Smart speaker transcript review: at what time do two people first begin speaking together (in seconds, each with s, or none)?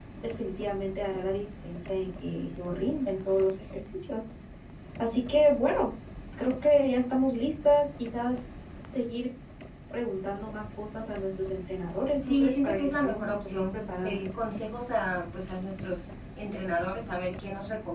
12.2 s